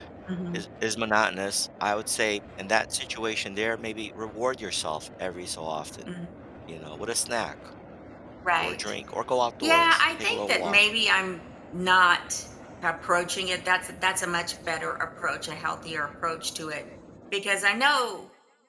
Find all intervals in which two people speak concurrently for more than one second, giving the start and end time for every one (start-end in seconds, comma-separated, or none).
9.6-10.8